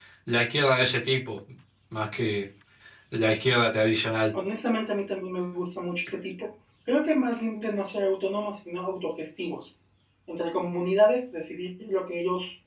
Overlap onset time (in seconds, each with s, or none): none